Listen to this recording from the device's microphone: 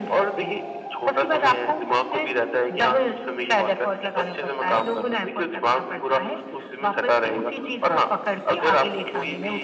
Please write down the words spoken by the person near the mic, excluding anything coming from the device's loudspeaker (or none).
none